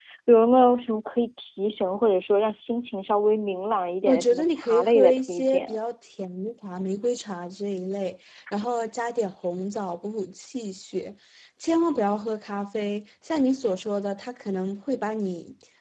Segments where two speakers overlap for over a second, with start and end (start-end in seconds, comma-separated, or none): 4.0-5.8